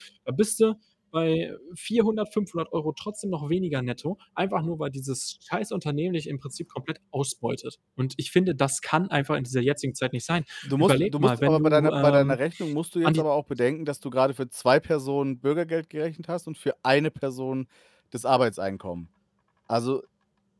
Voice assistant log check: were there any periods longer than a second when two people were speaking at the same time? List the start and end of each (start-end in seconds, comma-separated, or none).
10.6-12.4